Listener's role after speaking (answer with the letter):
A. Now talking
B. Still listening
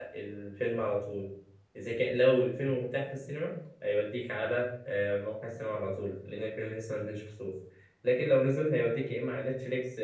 B